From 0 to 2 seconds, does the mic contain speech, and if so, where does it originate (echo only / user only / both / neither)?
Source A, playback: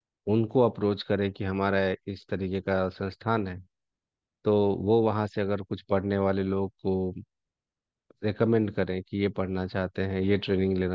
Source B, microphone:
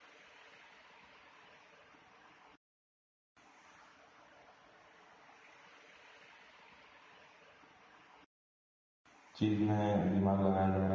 neither